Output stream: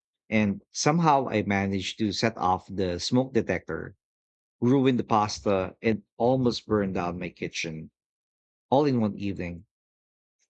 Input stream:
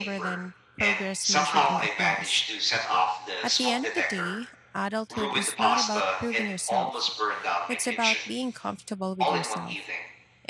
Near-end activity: present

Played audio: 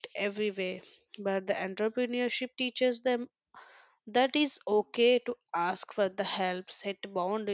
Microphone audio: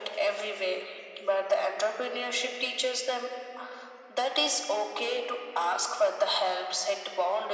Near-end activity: none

